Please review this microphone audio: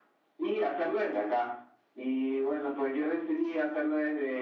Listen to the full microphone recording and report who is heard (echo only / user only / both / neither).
echo only